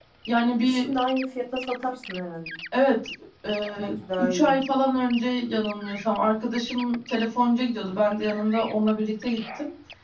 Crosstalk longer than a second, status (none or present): none